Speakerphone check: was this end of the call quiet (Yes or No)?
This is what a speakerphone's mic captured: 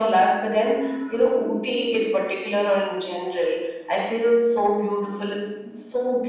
Yes